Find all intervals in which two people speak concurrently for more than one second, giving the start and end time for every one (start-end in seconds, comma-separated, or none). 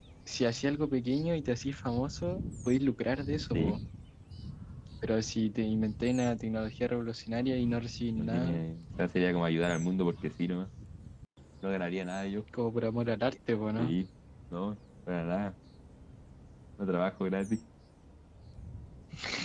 none